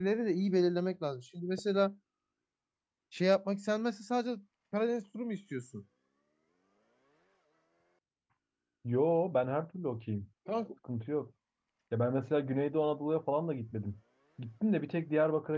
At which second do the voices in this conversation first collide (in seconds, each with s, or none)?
none